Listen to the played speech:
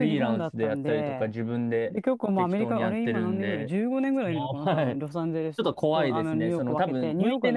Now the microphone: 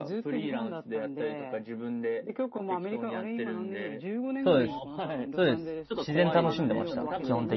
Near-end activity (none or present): present